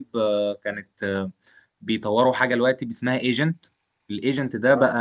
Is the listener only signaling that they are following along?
Yes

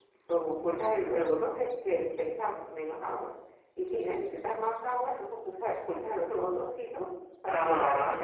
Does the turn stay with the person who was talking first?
No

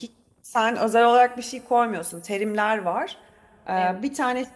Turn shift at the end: No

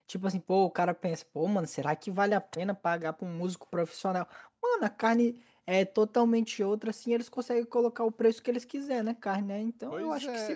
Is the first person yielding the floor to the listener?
Yes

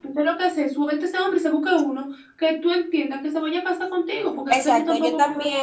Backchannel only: No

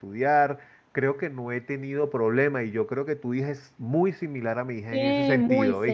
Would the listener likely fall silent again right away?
No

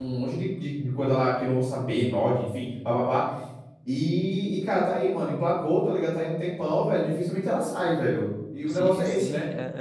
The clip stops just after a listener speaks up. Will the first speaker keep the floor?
No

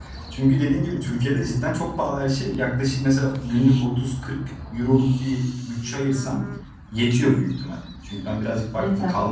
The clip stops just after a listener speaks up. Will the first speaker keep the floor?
Yes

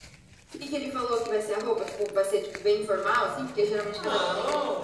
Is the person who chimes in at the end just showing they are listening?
No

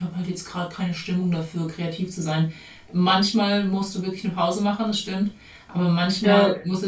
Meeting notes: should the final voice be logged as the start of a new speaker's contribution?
No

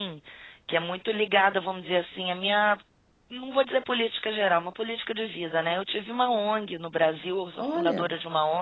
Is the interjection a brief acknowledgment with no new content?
Yes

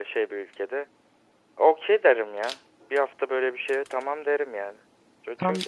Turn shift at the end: No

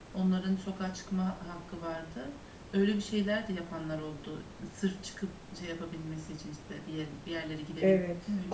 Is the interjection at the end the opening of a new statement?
Yes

